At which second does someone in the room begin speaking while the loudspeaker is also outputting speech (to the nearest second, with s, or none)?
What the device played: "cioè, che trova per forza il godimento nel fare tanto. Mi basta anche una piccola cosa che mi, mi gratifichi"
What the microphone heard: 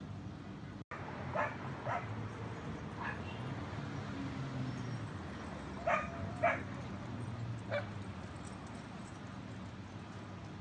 none